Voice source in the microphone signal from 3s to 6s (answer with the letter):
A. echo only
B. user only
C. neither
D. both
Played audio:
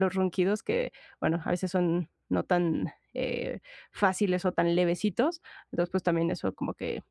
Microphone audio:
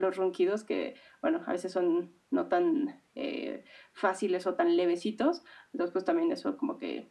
A